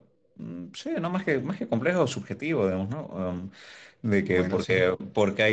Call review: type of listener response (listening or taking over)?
listening